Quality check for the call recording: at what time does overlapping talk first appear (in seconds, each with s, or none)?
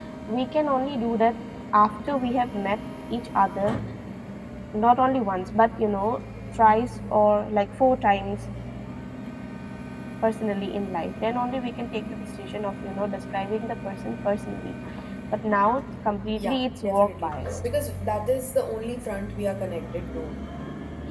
16.4 s